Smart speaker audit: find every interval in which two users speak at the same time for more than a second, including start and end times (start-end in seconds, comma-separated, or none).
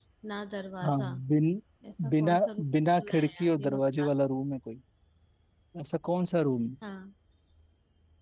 2.1-4.1